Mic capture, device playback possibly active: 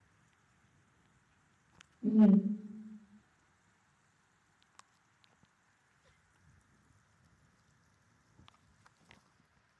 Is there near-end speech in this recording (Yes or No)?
Yes